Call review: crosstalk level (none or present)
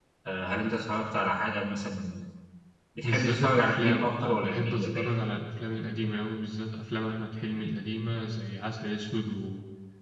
present